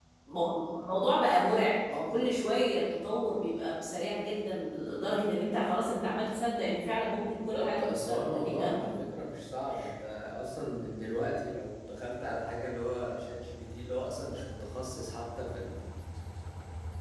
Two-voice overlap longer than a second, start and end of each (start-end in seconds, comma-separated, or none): 7.1-8.7